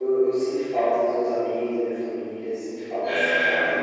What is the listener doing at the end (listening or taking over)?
taking over